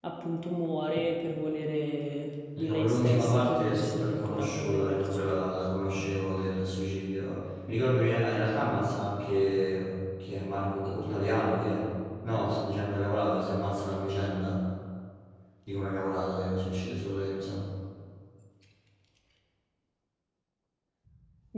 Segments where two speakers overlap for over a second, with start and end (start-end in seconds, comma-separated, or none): 2.6-5.4